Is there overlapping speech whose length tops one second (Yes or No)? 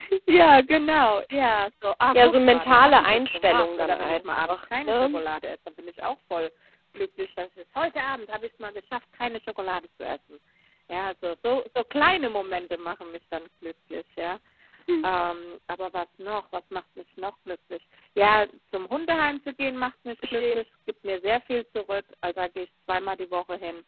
Yes